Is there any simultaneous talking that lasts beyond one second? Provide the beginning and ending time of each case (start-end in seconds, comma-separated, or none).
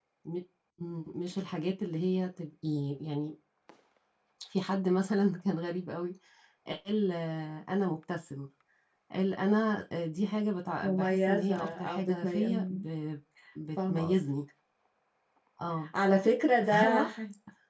10.8-12.8